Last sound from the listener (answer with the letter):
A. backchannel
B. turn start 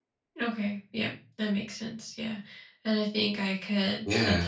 A